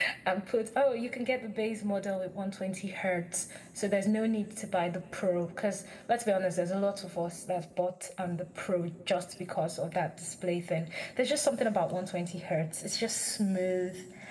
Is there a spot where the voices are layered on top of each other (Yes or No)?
No